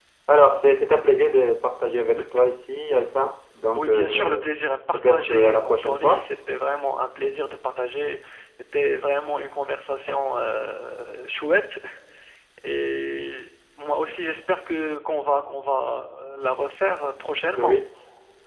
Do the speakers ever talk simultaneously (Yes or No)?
Yes